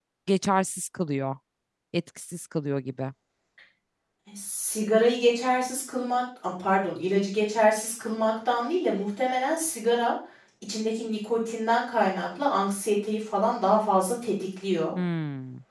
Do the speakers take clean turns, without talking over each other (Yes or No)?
Yes